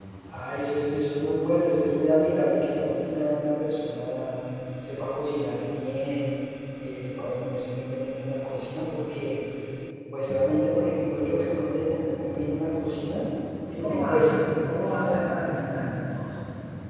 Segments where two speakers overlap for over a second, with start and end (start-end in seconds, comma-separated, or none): 13.7-15.8